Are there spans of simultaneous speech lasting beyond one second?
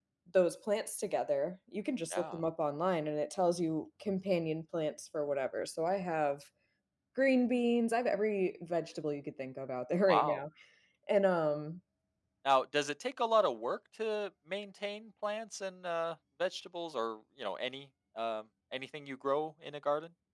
No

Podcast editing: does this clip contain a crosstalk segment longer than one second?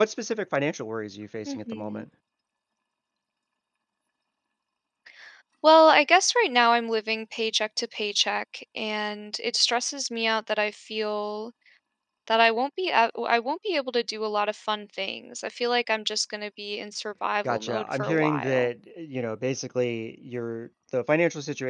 Yes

